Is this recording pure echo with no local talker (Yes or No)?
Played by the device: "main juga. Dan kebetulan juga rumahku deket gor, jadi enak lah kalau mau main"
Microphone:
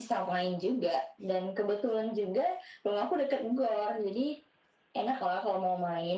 Yes